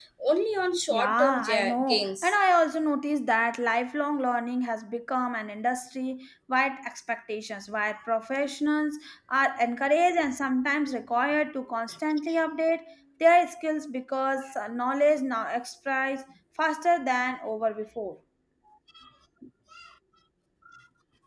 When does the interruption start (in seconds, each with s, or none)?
0.9 s